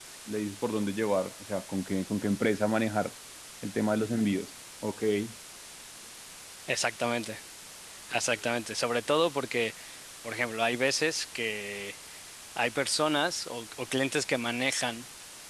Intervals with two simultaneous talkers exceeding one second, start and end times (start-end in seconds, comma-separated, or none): none